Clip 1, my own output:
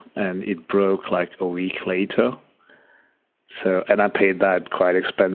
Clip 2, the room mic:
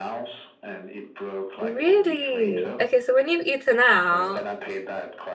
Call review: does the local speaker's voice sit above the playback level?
Yes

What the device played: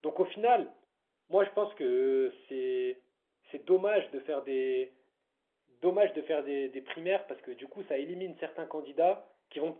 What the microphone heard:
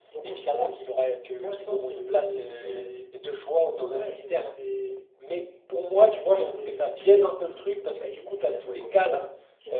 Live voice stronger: Yes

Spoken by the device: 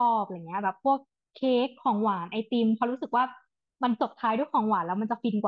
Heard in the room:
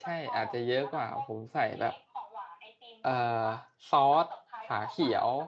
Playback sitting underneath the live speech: Yes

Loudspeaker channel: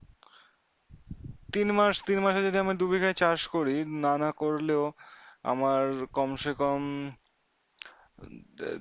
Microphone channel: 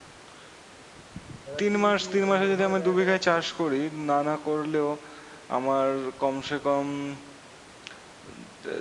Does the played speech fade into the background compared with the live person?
No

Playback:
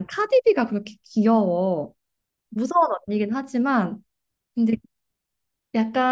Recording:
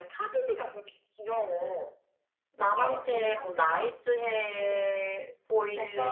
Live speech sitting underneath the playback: No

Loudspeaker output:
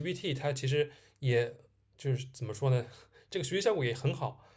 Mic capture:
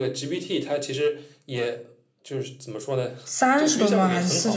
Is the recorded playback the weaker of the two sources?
Yes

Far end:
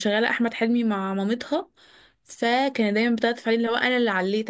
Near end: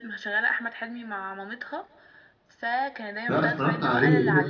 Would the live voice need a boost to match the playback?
No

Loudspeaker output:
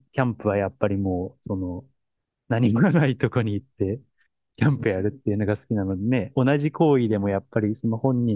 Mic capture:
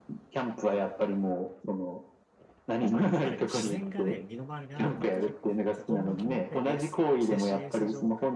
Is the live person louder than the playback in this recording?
No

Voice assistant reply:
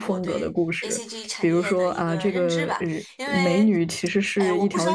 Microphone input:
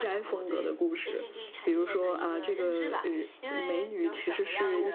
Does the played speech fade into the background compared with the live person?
No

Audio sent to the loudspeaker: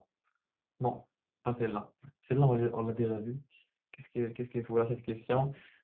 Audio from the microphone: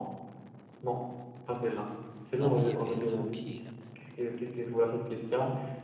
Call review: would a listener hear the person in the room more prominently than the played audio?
No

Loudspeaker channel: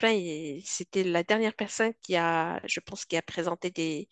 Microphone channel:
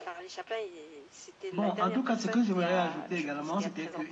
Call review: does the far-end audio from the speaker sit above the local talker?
No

